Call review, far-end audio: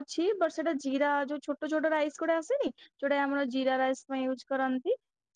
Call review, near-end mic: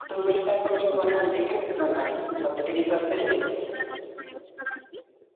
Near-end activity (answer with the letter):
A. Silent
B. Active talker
B